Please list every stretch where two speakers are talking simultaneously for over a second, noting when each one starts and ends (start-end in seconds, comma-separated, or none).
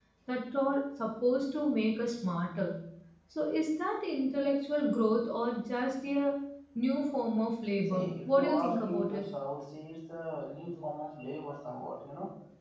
7.9-9.2